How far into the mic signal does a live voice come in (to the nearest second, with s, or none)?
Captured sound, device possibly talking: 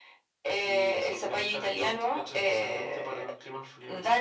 none